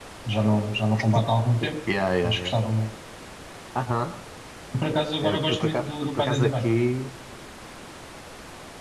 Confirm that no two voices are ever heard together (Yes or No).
No